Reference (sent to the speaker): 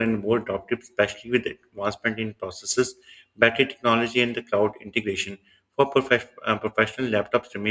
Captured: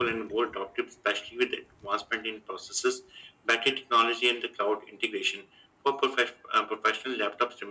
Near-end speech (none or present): none